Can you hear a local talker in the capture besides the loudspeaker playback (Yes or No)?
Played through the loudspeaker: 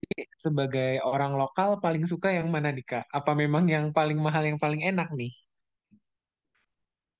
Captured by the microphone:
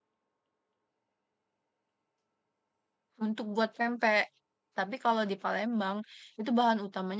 Yes